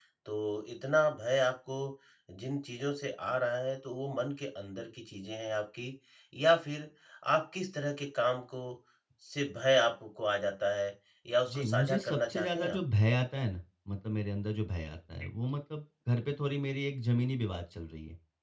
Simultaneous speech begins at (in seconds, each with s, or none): 11.5 s